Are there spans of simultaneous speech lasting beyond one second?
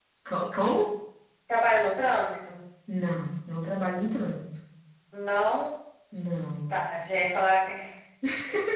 No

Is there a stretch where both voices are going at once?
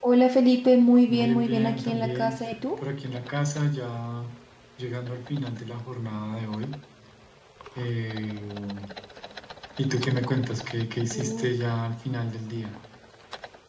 Yes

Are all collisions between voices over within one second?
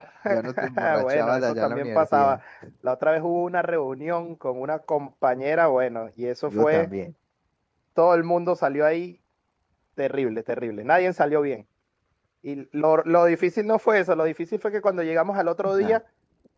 No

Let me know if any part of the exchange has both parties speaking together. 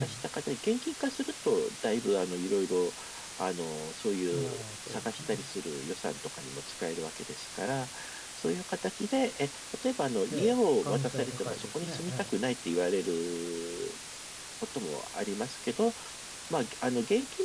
Yes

